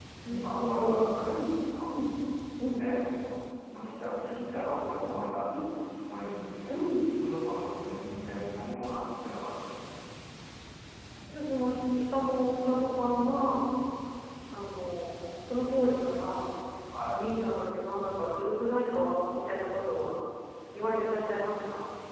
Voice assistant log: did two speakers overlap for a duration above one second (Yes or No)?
Yes